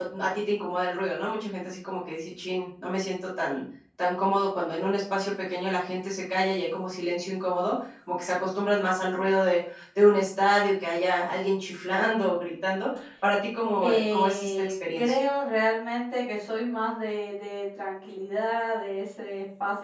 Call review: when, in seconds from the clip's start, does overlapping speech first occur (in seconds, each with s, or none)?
13.7 s